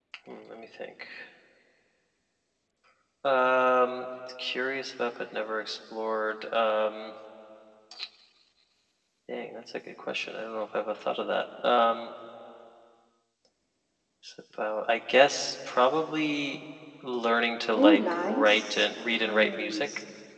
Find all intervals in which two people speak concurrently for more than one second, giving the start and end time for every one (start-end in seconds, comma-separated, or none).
17.7-19.8